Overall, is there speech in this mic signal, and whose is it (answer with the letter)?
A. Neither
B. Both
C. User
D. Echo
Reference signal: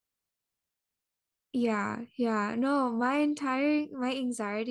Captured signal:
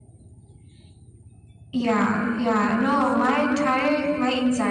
B